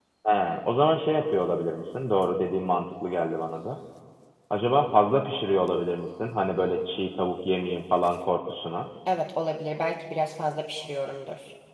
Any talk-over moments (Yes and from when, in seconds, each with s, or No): No